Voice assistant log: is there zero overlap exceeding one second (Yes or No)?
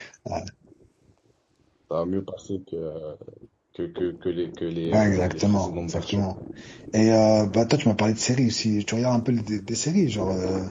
No